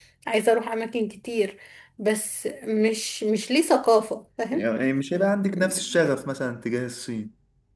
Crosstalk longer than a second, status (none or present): none